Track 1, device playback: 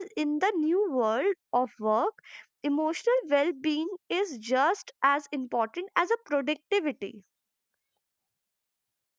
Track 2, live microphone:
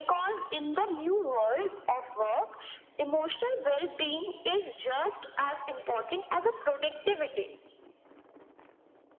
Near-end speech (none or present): none